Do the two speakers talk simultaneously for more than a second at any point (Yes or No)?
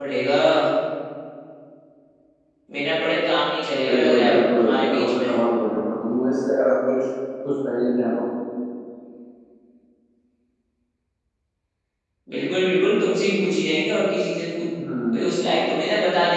Yes